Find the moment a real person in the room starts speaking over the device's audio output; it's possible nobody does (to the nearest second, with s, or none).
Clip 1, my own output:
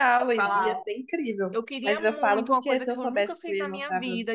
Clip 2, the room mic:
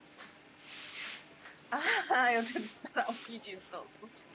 2 s